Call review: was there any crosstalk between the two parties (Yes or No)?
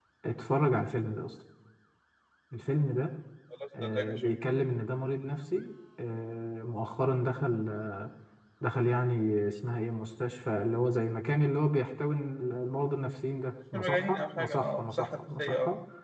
Yes